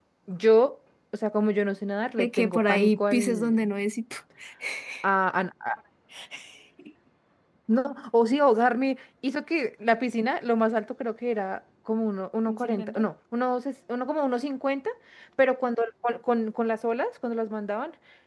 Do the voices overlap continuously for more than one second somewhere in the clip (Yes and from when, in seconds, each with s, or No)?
Yes, from 2.2 s